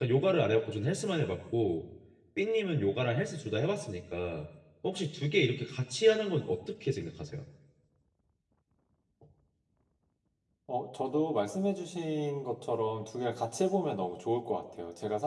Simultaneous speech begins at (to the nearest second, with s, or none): none